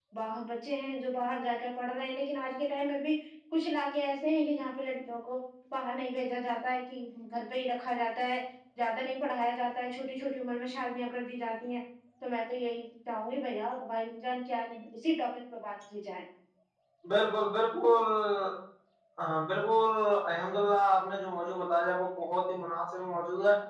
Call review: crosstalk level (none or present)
none